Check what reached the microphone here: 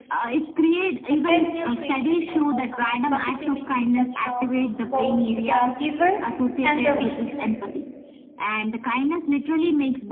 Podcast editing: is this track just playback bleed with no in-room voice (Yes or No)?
No